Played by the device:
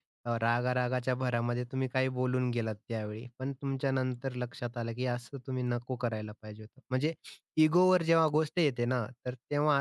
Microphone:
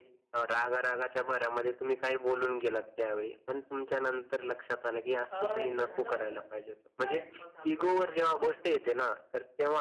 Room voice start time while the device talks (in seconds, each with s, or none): 5.3 s